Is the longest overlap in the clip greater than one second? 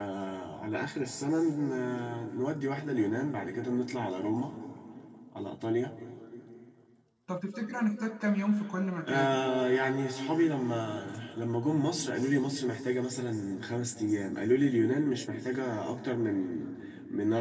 No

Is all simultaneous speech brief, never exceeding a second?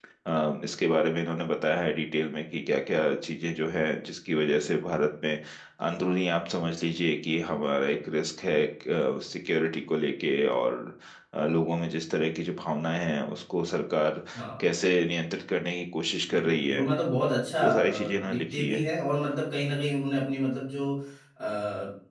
No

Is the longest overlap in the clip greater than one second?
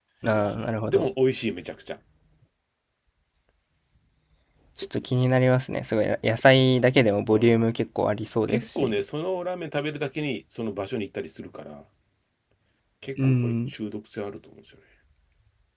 No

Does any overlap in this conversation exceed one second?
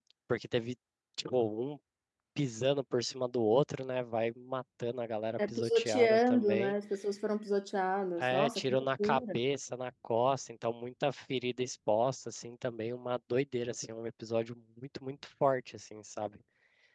Yes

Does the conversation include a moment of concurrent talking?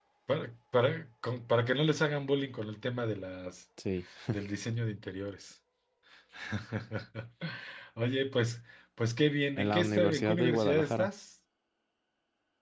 Yes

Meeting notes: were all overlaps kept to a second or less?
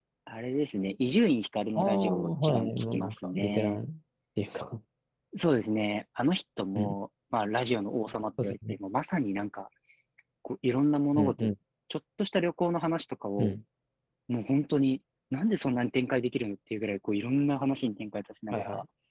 No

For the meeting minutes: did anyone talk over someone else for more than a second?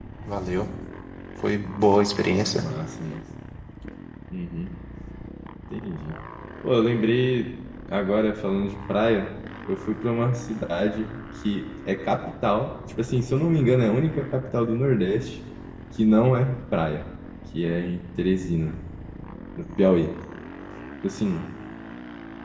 No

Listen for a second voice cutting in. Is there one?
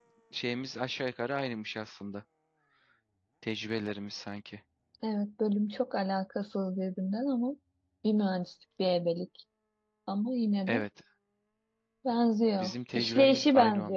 Yes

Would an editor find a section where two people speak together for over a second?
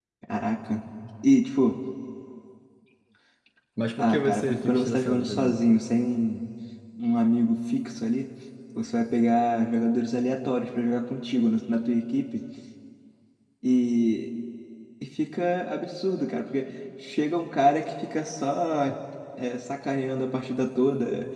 Yes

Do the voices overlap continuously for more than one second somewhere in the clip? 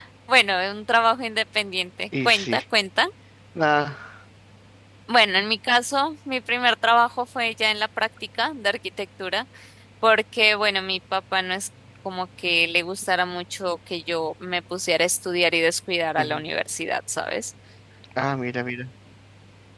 No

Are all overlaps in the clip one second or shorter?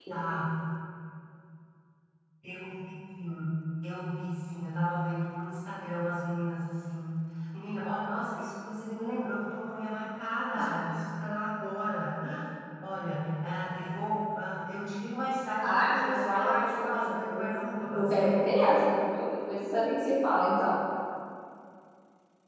No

